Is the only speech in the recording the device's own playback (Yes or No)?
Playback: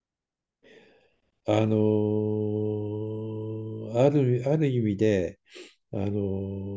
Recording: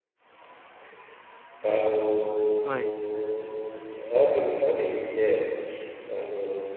No